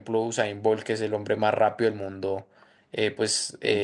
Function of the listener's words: listening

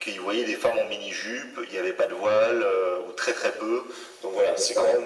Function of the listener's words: taking over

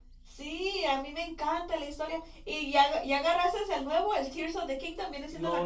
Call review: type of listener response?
taking over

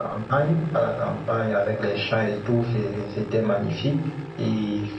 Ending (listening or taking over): listening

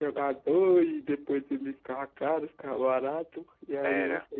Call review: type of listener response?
listening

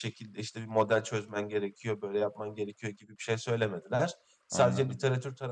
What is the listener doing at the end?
listening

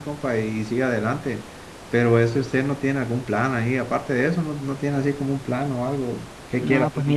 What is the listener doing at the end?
taking over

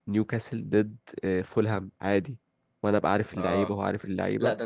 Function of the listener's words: taking over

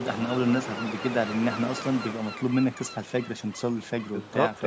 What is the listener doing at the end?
taking over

